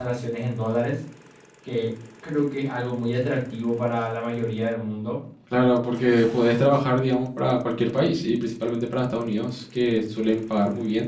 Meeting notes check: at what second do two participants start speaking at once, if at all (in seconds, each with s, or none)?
none